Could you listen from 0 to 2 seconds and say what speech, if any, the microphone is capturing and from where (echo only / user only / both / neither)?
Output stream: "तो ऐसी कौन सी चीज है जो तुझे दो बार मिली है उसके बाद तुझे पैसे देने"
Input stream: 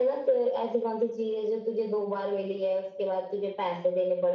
echo only